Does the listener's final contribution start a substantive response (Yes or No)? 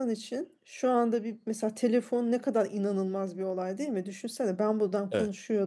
No